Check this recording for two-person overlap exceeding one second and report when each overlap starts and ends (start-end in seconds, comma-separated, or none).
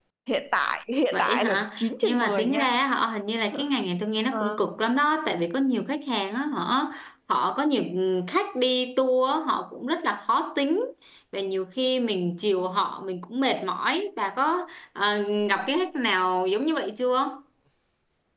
1.1-2.7